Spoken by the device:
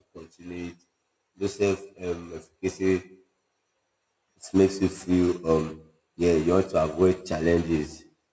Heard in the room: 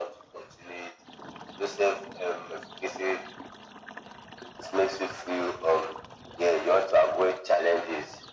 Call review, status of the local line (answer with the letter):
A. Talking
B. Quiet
B